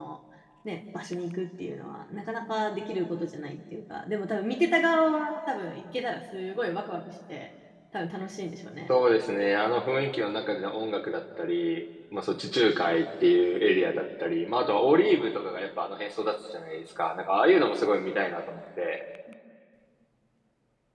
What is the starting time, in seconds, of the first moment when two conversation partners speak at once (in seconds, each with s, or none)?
none